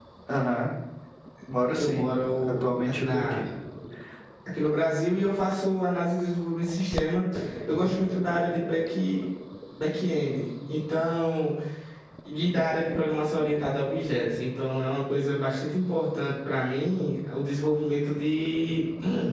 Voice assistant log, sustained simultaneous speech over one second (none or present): present